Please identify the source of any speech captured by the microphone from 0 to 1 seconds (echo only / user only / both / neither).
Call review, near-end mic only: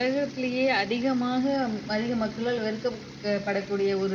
echo only